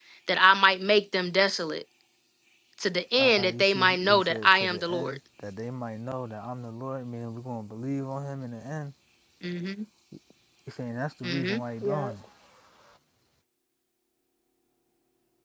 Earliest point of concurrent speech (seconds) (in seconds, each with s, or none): 3.2 s